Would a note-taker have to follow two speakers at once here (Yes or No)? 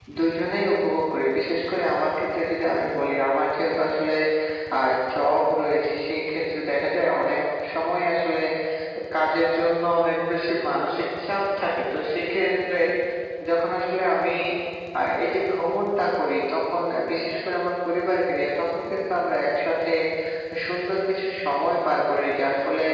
No